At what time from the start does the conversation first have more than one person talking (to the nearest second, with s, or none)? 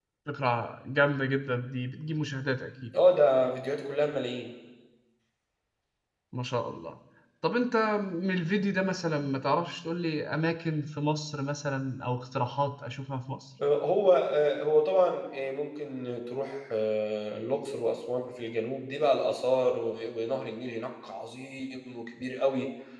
none